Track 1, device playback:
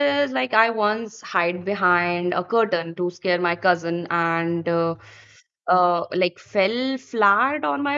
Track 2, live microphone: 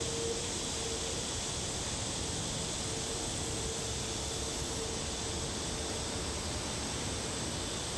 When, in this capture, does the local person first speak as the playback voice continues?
none

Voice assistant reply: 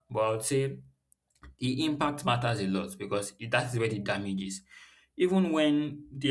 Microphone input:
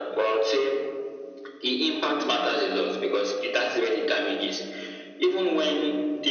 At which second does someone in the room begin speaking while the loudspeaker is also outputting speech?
none

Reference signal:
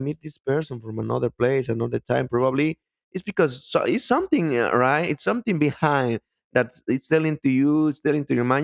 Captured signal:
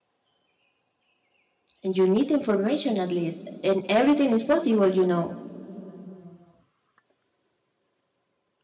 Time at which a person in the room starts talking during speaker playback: 2 s

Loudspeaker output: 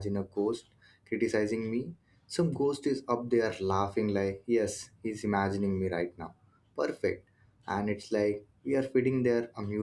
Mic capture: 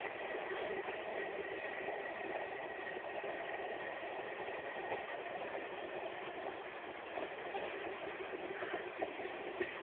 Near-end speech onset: none

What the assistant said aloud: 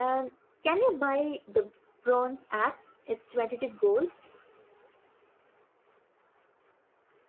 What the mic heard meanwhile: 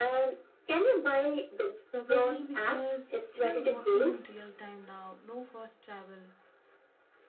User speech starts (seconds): 2 s

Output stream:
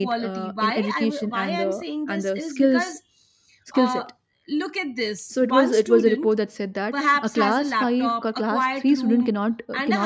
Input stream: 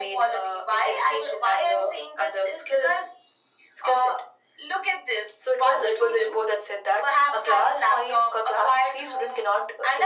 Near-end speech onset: none

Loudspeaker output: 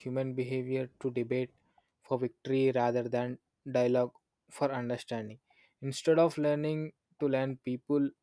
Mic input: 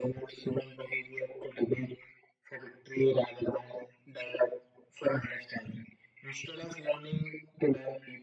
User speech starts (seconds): none

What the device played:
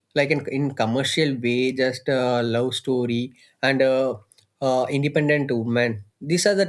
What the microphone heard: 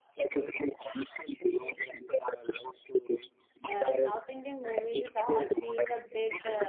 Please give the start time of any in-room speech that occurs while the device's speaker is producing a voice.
4 s

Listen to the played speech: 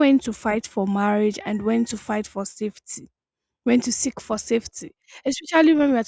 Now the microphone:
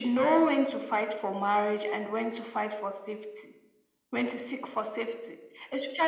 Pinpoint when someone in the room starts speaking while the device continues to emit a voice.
none

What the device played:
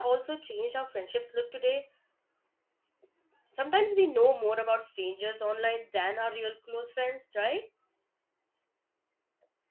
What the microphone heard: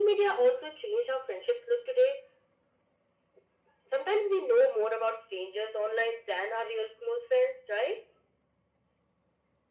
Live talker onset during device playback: none

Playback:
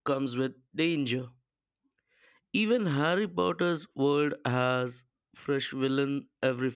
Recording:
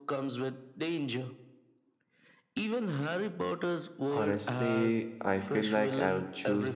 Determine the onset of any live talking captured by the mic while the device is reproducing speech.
4 s

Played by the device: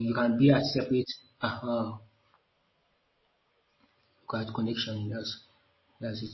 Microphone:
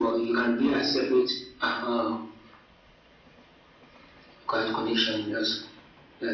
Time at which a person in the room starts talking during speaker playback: none

